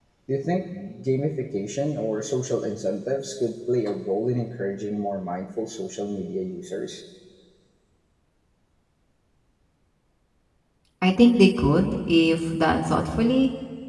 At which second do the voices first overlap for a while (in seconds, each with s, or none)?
none